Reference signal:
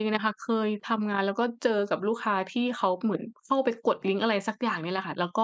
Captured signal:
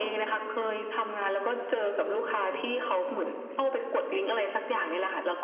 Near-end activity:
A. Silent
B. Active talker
B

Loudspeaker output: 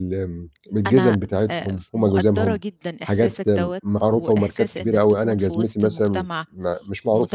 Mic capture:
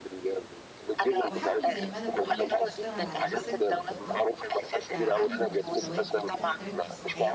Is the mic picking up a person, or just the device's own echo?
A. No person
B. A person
B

